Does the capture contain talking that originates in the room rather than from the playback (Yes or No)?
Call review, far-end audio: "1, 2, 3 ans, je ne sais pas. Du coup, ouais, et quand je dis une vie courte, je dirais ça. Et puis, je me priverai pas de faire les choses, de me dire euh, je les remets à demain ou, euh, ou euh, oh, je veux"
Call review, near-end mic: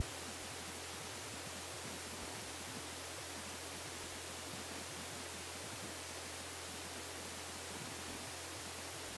No